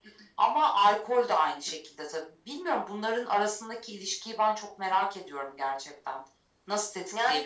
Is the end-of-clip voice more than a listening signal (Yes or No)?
No